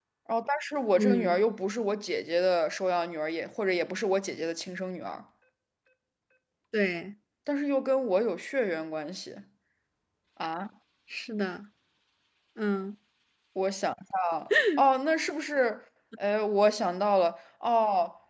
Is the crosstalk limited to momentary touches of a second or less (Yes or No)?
Yes